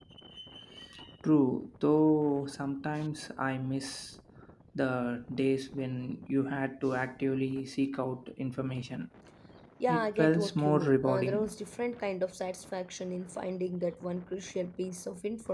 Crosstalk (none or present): present